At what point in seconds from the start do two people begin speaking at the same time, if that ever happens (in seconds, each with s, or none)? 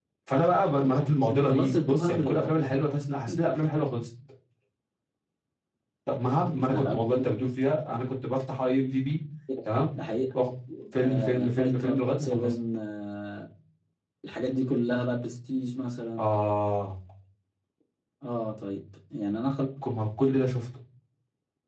1.3 s